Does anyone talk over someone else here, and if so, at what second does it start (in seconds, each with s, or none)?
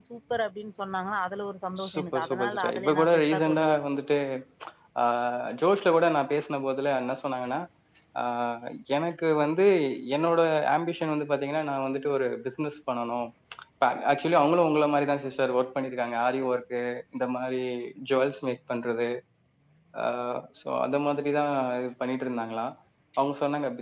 1.8 s